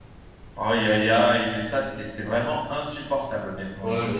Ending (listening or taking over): taking over